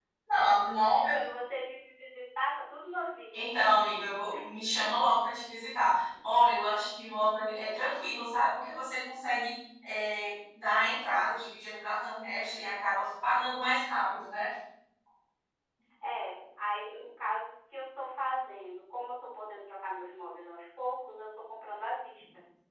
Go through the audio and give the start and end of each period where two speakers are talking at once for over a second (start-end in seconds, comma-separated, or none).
none